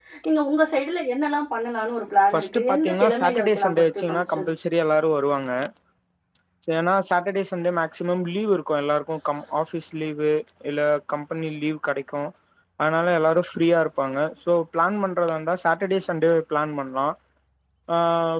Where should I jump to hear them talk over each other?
2 s

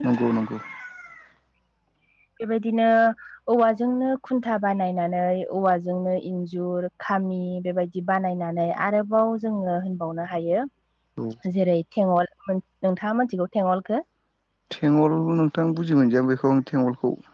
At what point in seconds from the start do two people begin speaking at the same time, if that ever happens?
none

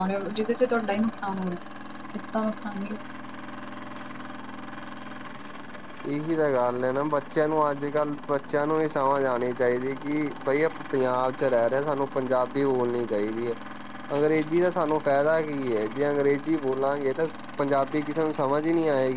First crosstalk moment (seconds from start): none

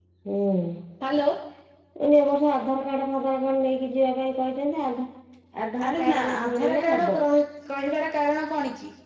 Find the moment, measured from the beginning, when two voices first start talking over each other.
6 s

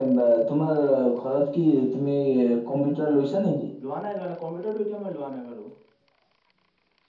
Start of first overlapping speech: none

